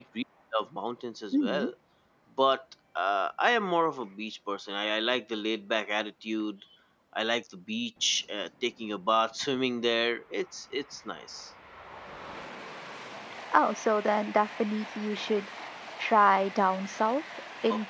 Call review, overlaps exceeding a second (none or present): none